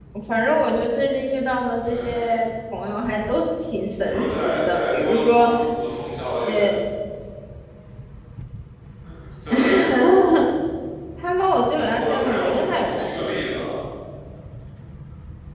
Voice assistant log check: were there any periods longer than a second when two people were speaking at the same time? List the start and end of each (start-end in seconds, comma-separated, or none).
4.1-5.5, 11.8-13.6